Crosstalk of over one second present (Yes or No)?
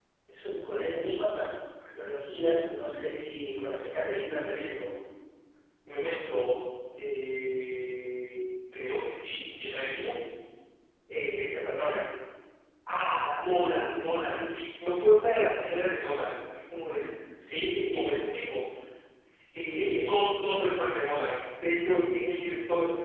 No